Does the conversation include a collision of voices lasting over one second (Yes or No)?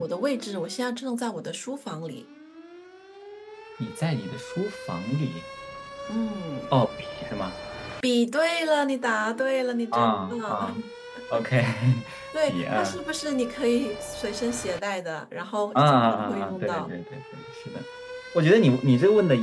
Yes